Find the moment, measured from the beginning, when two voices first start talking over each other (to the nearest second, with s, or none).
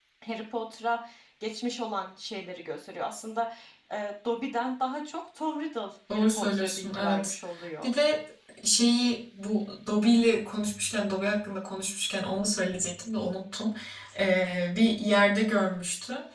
6 s